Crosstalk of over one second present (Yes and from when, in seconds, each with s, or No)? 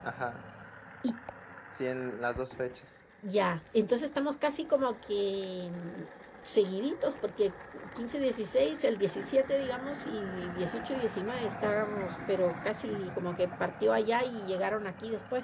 No